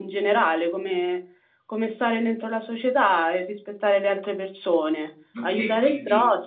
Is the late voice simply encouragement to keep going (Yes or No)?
No